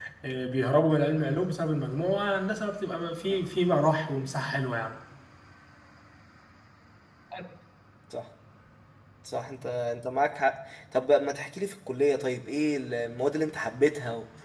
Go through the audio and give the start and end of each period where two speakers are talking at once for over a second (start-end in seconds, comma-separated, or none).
none